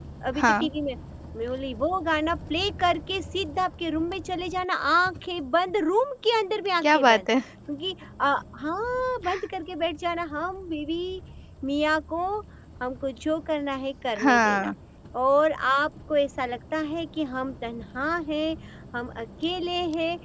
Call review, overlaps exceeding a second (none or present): none